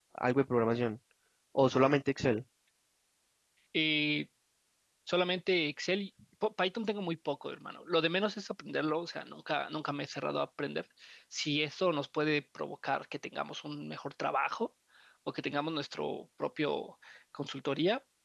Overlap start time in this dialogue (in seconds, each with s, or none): none